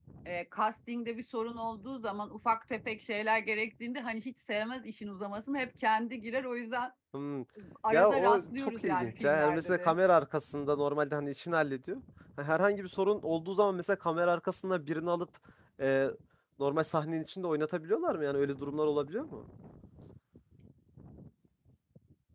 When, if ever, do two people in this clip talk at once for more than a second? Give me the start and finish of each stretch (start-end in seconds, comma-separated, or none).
7.9-9.9